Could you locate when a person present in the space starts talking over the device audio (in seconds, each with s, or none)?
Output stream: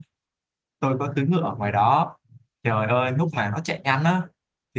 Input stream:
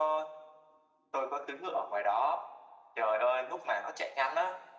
none